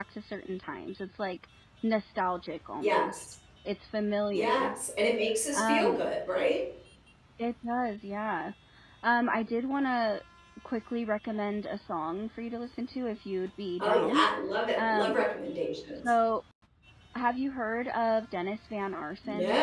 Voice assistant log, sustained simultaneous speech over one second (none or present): none